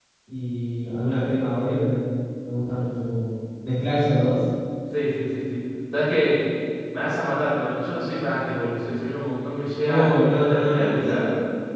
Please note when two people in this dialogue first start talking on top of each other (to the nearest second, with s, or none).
10 s